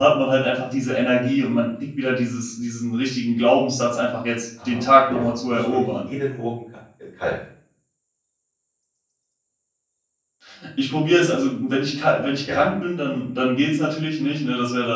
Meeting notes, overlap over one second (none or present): present